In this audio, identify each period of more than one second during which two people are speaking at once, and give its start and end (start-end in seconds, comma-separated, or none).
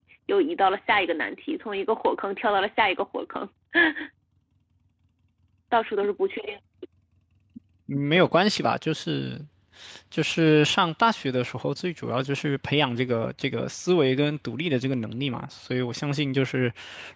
none